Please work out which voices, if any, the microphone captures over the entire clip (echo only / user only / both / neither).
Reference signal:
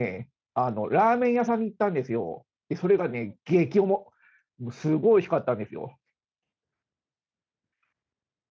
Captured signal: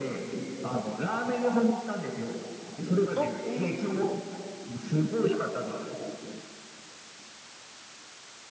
both